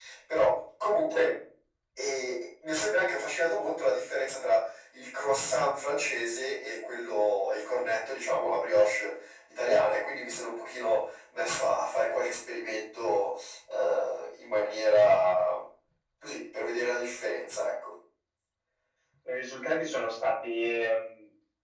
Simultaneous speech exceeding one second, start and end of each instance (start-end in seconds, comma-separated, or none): none